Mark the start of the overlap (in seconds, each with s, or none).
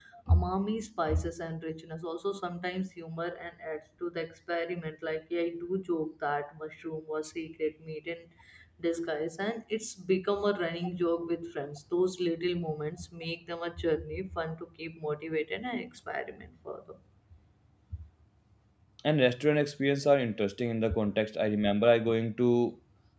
none